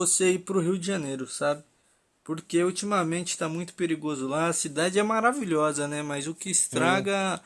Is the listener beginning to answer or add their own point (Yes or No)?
No